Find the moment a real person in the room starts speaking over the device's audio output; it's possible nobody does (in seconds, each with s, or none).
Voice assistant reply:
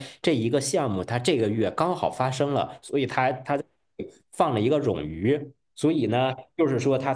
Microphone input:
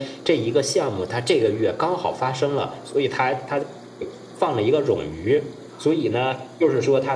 none